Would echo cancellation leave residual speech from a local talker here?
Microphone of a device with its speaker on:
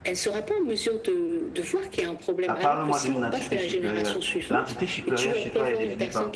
Yes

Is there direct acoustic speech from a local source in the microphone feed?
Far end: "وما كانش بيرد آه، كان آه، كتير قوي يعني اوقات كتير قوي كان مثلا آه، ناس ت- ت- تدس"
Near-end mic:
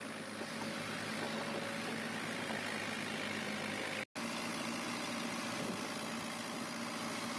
No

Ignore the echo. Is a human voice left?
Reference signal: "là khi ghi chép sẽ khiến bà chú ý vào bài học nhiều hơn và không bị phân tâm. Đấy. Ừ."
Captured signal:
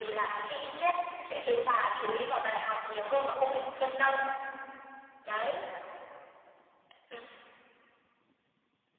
No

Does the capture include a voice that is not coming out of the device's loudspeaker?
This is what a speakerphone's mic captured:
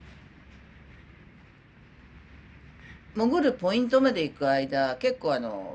Yes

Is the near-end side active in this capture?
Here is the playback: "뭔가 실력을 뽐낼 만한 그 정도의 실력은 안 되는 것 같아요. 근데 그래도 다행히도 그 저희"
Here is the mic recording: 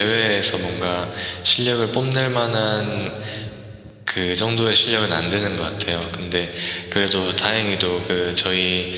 No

